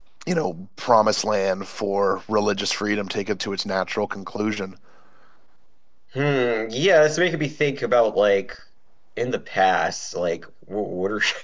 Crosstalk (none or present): none